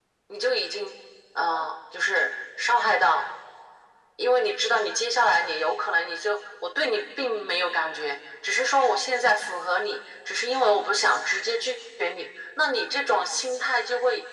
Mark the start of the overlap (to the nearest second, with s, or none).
none